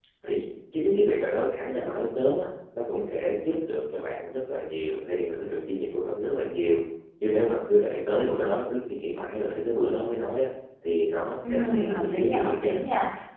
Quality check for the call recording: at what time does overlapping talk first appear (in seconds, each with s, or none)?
11.5 s